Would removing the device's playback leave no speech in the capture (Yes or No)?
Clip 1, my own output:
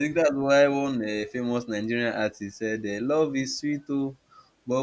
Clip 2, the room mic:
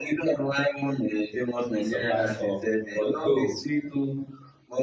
No